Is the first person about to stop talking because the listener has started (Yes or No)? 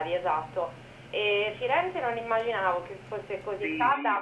Yes